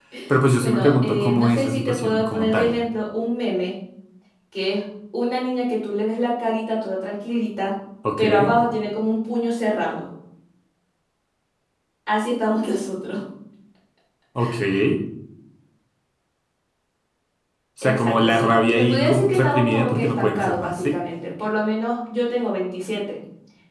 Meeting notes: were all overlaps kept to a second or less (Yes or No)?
No